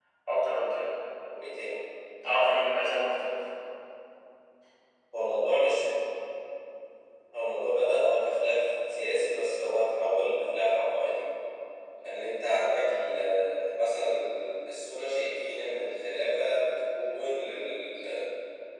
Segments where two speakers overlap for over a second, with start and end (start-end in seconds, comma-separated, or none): none